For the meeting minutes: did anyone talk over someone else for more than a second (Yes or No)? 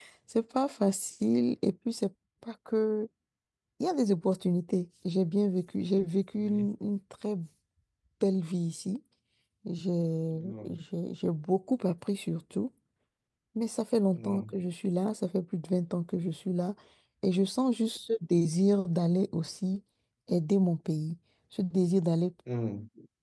No